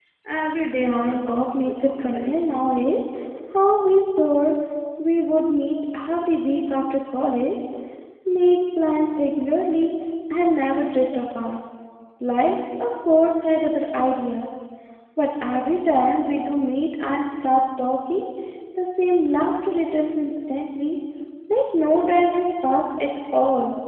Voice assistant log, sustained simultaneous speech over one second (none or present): present